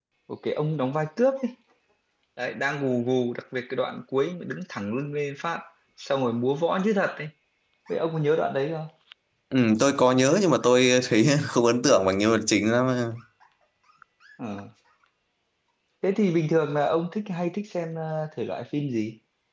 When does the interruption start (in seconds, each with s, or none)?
none